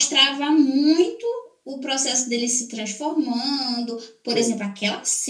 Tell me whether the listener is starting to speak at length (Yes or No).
No